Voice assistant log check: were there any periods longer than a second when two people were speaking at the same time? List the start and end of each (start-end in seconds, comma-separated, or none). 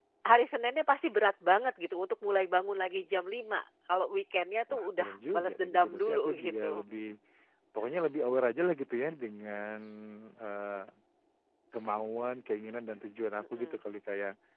4.7-6.8